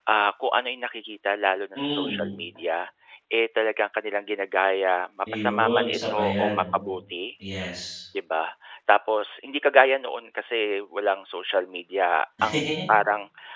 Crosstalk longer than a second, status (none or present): present